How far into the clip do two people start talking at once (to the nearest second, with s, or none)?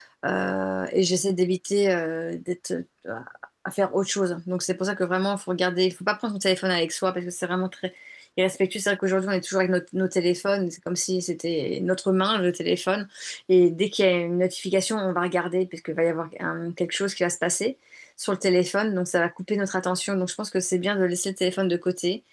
none